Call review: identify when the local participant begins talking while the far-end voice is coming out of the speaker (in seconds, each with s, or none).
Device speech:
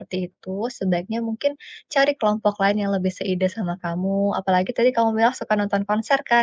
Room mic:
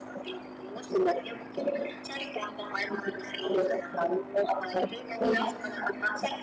5.2 s